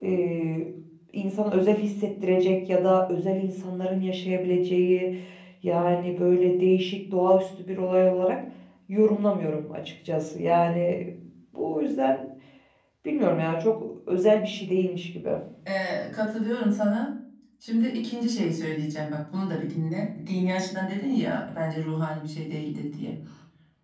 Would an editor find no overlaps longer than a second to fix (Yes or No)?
Yes